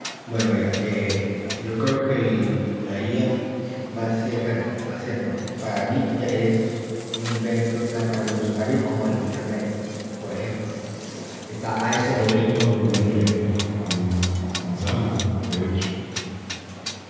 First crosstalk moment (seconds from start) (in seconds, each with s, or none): 11.9 s